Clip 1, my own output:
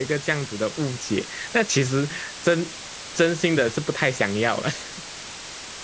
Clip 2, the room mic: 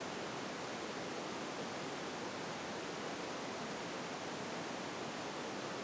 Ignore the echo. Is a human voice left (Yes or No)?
No